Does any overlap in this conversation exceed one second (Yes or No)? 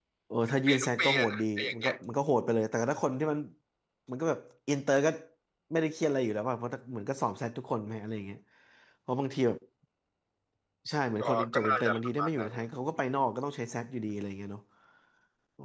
Yes